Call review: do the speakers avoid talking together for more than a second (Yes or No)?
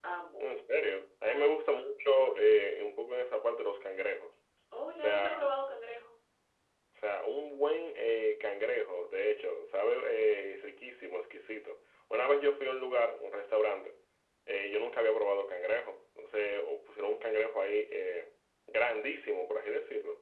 Yes